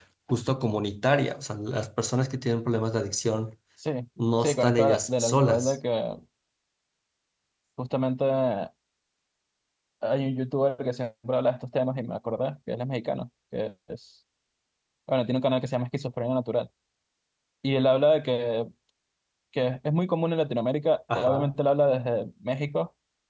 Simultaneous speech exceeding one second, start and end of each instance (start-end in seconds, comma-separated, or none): 4.4-5.8